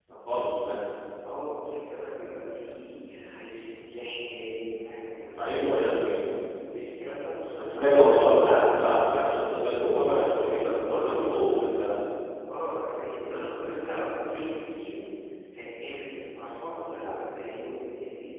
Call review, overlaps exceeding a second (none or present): present